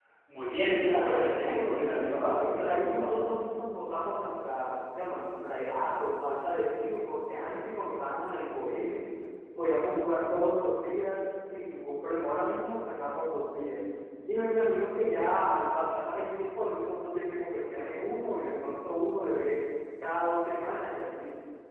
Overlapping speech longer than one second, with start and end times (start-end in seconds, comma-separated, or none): 0.7-3.3